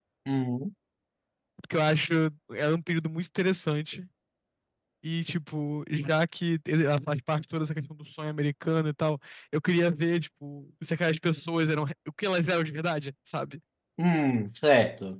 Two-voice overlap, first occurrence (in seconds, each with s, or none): none